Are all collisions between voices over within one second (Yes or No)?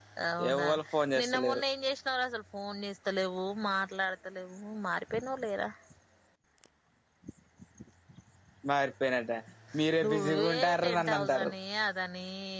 No